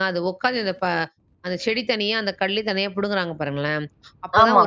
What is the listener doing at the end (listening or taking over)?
listening